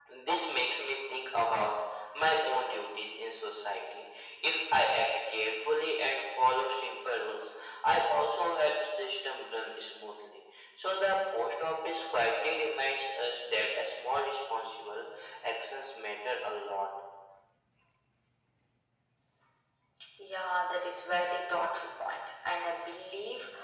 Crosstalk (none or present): none